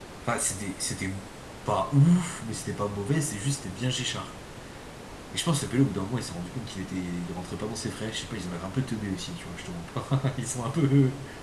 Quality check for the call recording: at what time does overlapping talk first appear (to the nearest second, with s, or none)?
none